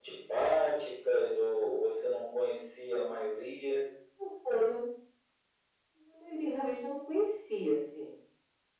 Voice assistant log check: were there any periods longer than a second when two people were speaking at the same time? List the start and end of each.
none

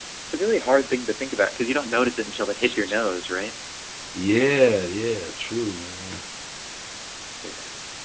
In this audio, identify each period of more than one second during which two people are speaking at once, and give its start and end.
none

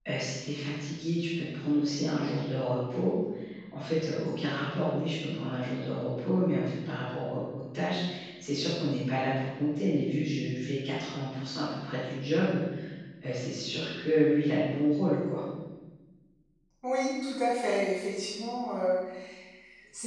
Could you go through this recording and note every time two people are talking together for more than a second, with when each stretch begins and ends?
none

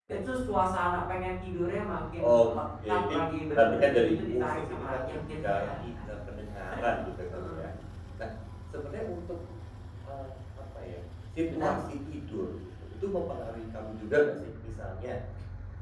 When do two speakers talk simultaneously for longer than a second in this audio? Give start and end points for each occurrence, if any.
3.6-5.7

